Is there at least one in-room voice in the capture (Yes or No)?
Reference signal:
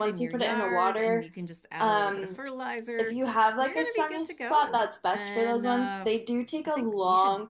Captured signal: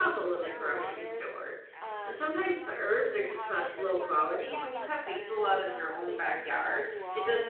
Yes